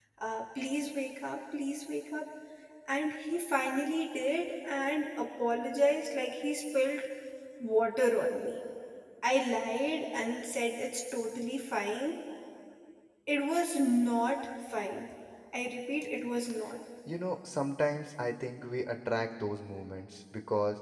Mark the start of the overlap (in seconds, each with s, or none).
none